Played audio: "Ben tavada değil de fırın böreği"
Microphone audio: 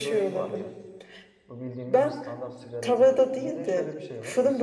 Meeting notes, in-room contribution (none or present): present